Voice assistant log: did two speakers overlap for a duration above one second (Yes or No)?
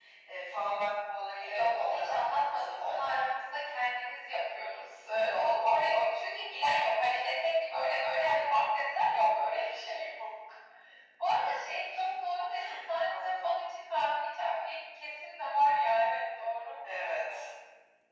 Yes